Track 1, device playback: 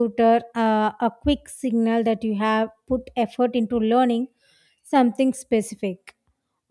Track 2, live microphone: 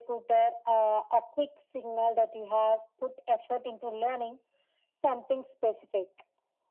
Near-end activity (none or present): none